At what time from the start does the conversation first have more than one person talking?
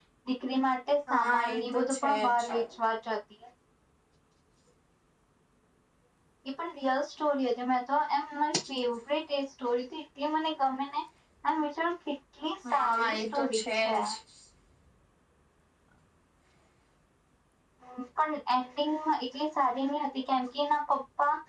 1.1 s

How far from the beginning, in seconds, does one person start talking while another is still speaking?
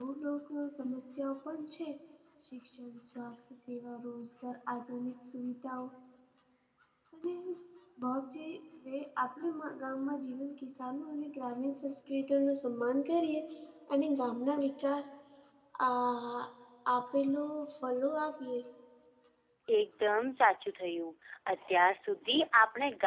none

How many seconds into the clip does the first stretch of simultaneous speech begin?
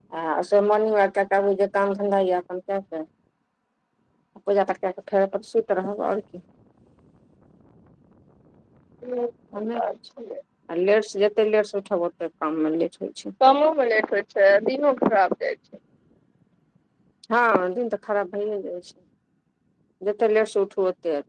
none

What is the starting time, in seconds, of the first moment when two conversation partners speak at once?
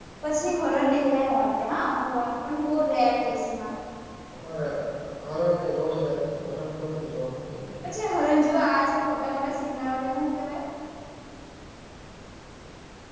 none

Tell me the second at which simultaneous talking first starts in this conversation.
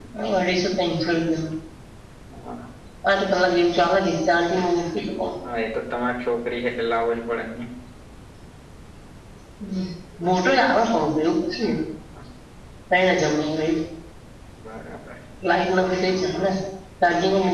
none

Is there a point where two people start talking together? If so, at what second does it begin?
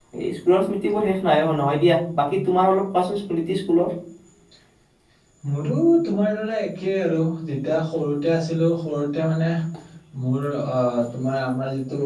none

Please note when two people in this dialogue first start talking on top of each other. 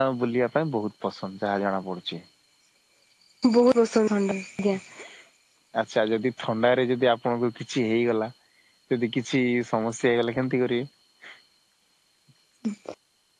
none

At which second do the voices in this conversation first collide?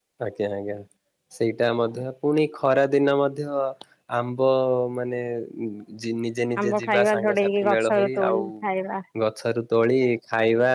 6.6 s

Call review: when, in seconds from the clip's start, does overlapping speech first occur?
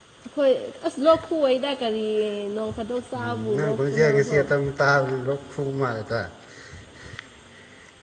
3.2 s

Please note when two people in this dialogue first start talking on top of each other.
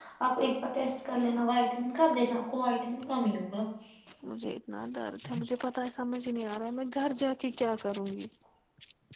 none

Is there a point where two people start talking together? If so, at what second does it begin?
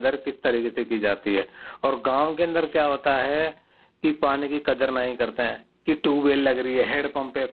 none

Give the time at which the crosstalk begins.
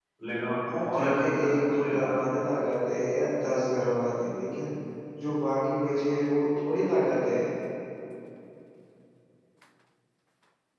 0.9 s

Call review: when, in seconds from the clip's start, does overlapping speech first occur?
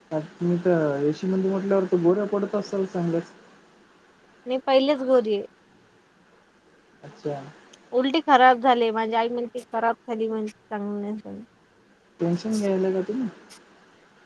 none

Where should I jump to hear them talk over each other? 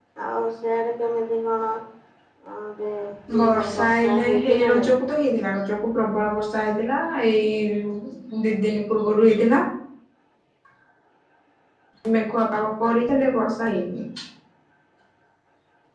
3.4 s

